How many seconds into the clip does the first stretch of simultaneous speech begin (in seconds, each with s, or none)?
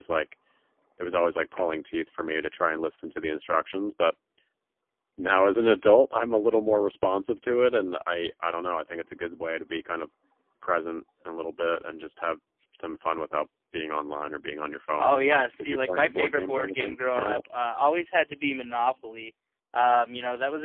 15.0 s